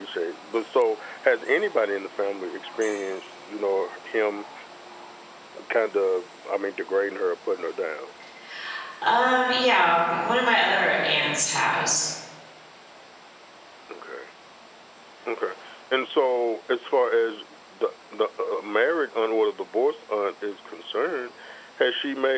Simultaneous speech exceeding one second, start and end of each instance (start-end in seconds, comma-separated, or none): none